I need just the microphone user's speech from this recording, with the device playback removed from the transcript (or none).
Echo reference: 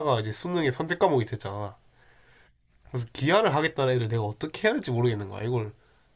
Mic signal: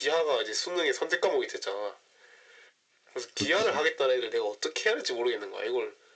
그렇지.